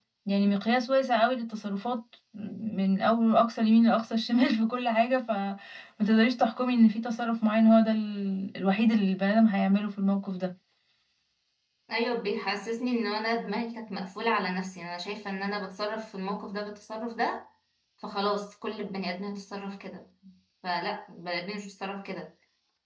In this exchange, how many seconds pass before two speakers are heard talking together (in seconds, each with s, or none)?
none